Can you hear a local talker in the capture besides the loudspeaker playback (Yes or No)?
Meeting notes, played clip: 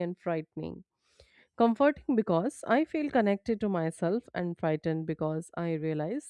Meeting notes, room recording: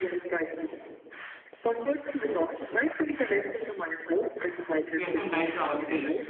Yes